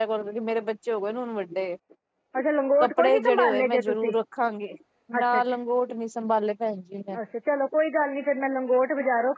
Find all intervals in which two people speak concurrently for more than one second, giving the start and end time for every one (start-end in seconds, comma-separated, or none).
2.8-4.1